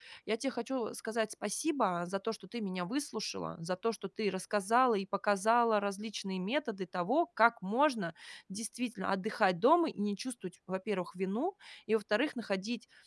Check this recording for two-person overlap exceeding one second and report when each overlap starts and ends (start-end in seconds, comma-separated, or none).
none